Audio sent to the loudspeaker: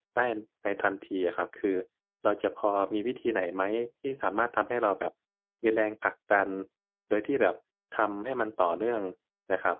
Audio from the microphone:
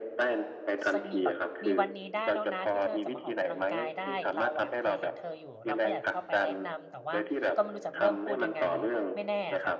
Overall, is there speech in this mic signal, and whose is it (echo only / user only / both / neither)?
both